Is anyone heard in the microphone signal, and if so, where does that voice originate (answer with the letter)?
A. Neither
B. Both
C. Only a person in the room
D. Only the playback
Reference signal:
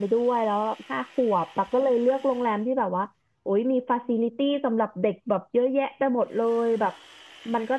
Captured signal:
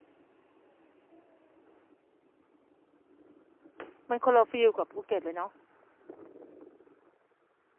C